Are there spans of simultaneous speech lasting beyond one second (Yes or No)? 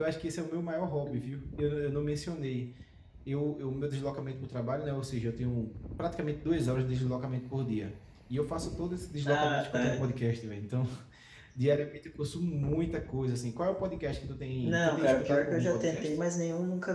Yes